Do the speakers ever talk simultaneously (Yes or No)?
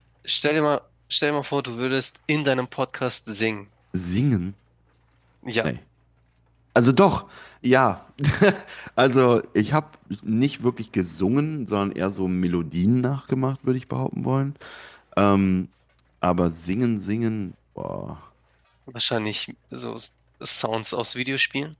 No